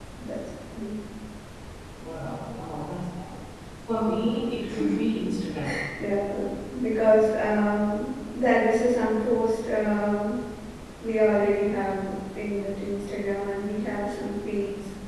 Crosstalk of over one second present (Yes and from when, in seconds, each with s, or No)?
No